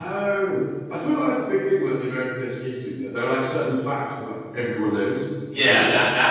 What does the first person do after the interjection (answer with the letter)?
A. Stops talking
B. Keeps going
A